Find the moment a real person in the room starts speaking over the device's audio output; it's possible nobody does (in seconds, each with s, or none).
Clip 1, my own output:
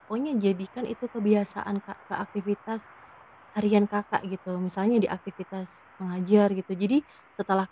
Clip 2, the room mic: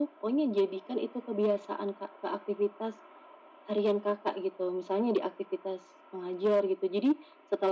none